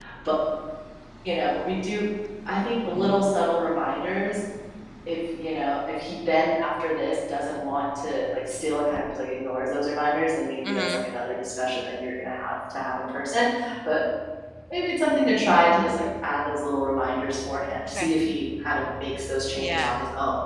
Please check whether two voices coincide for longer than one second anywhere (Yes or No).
No